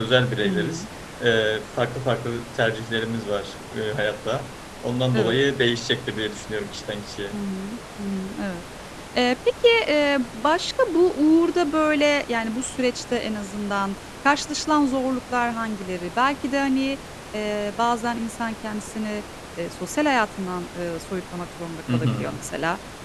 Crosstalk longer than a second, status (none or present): none